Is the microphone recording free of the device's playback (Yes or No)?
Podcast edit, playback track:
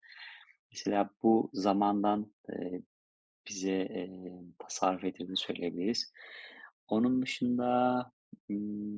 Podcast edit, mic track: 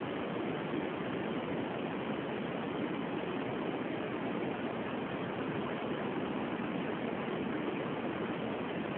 Yes